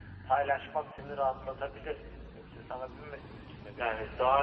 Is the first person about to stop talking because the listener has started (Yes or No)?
Yes